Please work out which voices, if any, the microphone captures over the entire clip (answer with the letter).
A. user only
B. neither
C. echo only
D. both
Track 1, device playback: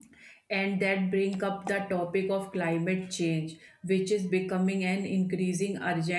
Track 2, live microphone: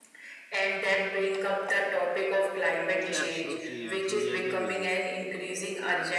D